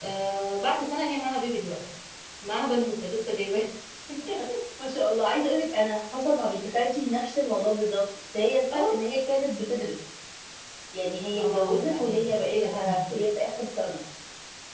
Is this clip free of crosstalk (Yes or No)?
No